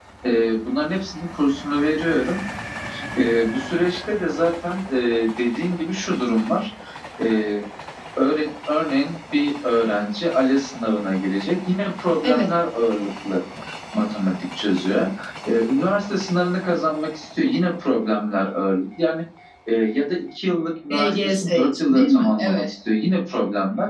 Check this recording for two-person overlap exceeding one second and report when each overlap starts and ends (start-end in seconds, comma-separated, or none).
20.9-22.7